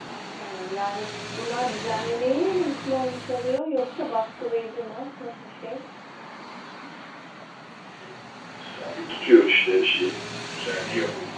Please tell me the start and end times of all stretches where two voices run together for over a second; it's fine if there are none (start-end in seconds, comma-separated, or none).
none